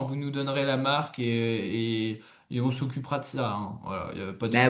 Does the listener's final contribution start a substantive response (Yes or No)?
Yes